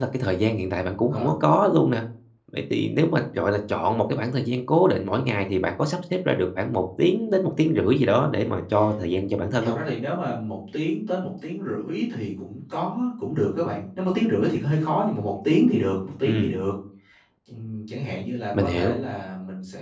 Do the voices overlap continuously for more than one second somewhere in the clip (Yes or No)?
No